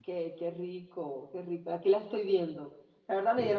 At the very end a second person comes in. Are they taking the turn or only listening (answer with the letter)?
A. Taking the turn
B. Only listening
B